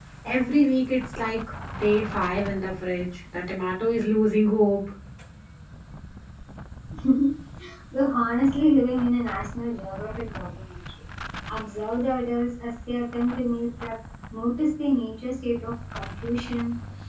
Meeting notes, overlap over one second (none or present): none